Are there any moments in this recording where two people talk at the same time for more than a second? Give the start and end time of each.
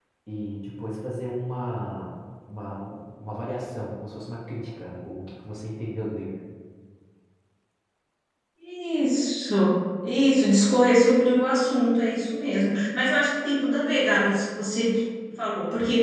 none

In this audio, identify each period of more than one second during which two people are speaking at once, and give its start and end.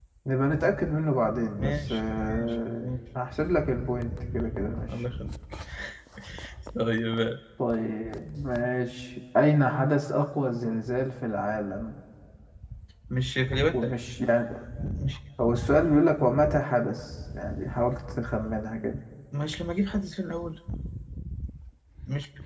1.6-2.9

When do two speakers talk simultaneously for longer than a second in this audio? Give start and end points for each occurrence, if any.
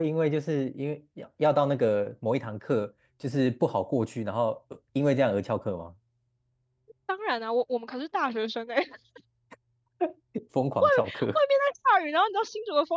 none

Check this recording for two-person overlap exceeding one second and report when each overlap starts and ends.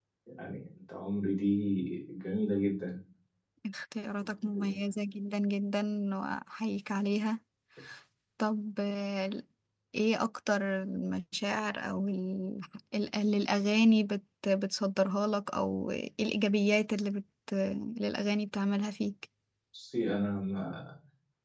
none

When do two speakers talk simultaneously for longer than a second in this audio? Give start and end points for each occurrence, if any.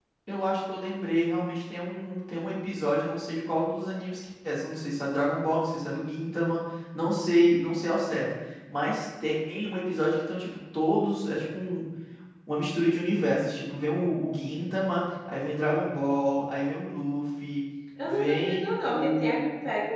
18.0-19.4

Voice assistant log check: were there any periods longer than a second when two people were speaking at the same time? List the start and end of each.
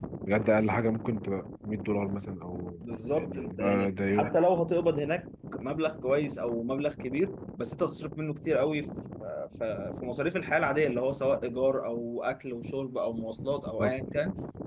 2.8-4.3

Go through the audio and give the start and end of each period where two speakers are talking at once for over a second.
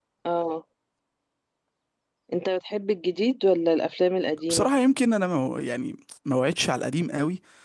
none

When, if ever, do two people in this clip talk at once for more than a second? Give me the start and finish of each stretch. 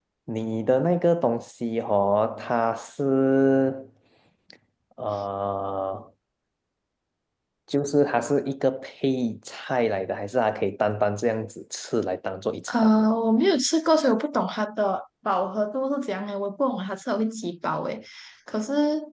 none

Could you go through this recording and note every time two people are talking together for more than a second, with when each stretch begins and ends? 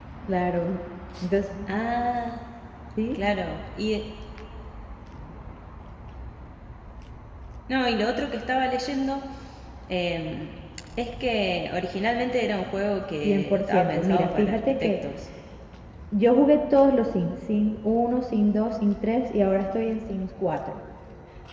13.2-14.9

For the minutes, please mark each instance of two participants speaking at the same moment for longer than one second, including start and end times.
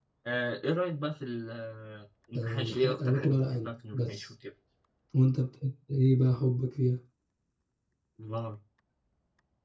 2.4-4.3

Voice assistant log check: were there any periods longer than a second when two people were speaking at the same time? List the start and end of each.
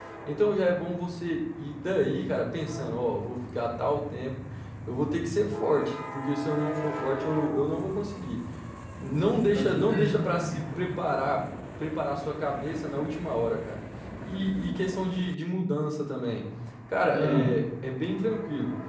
9.6-10.8

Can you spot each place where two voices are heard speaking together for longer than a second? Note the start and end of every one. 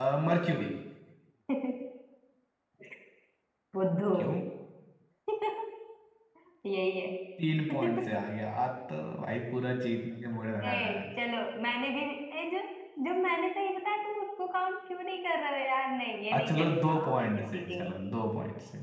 16.3-17.9

